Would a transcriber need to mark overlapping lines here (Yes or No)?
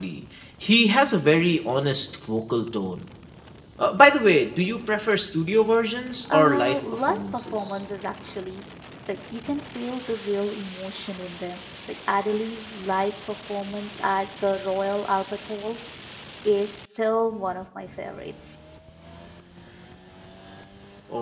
Yes